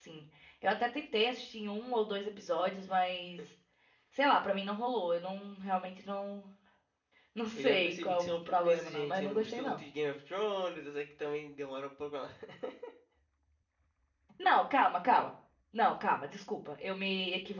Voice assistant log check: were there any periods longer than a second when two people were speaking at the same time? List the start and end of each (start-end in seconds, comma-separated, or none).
7.5-9.8